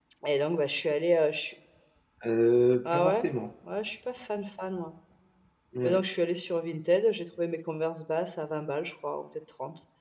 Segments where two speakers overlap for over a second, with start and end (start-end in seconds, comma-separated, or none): none